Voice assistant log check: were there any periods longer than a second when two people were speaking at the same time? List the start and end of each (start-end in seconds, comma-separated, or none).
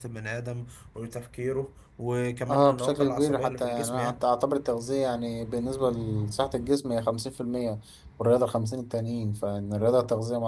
2.5-4.2